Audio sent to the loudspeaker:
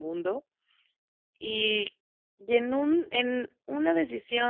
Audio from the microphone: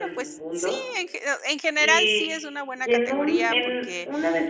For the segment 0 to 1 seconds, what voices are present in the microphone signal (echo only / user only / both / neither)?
both